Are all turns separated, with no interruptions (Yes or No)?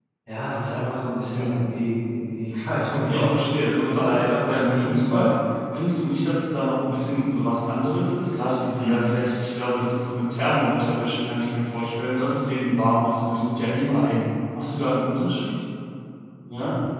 No